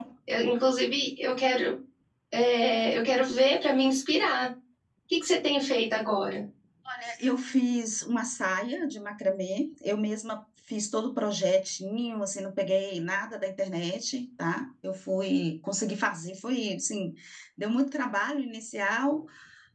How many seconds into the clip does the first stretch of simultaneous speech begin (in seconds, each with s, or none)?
none